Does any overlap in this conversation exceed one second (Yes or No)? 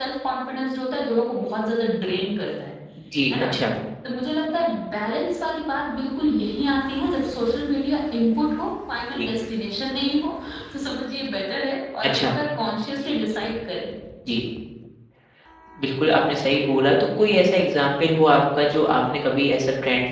No